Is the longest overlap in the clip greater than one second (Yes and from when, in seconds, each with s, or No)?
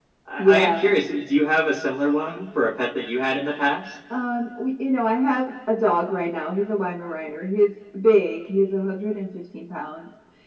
No